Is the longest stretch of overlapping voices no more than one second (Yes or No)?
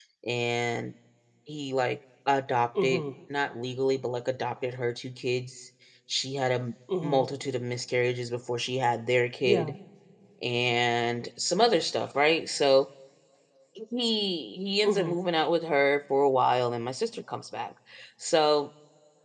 Yes